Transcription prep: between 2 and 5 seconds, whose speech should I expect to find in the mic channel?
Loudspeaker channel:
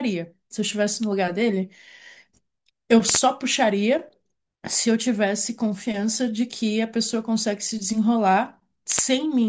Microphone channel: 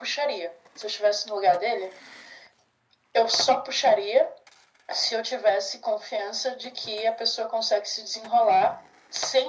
echo only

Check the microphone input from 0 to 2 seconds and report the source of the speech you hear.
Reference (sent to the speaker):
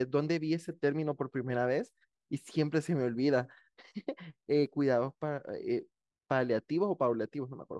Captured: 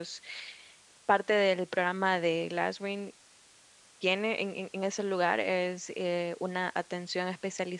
user only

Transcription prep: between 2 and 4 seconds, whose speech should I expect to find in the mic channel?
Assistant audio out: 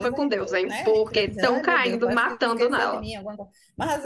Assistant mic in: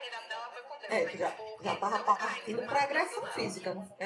both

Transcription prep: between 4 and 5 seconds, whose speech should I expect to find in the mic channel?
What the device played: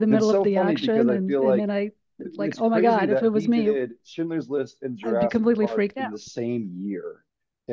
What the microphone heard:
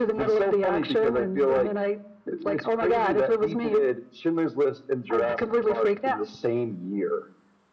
echo only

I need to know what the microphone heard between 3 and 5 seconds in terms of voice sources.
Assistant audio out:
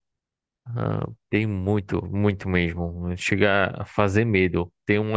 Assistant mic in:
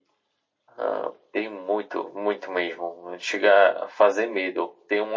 echo only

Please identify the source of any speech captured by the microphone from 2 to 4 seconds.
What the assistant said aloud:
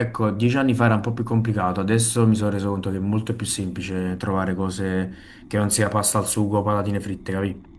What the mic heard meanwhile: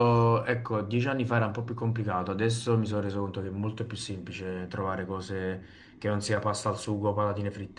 echo only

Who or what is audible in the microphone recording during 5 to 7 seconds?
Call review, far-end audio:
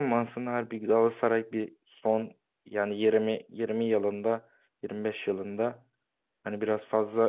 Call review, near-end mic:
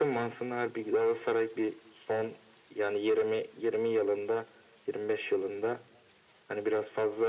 echo only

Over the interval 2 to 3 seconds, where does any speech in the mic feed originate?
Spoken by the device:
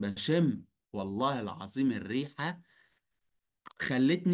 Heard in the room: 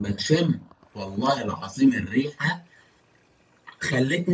echo only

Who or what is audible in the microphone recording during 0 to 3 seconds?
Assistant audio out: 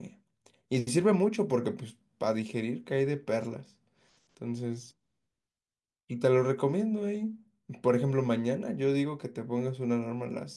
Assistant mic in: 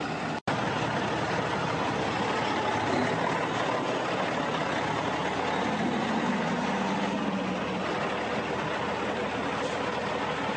neither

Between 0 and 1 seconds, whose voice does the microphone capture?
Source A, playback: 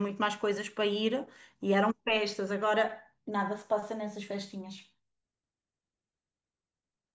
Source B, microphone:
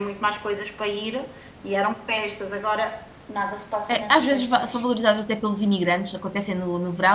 echo only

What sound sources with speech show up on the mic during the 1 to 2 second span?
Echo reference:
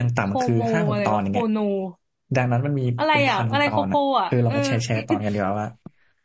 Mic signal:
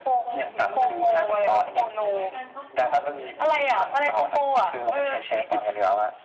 both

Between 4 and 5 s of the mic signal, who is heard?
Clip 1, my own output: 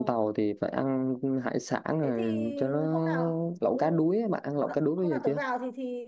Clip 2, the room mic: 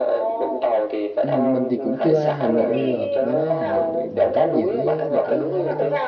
both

